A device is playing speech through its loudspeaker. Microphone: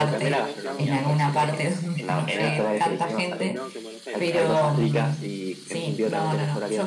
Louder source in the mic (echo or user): echo